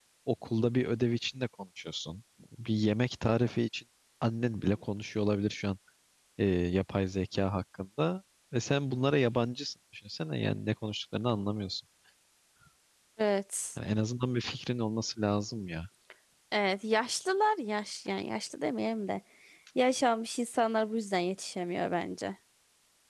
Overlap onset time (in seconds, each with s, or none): none